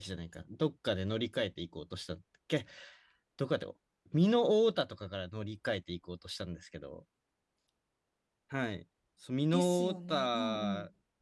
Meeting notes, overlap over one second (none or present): present